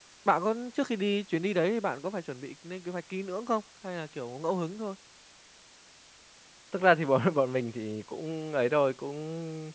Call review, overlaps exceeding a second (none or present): none